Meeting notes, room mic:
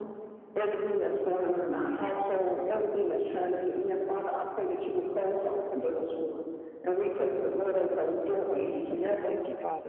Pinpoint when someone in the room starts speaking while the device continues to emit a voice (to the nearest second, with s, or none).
9 s